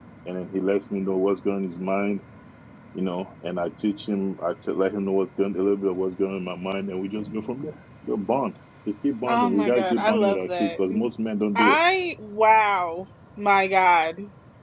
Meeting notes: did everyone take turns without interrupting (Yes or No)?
No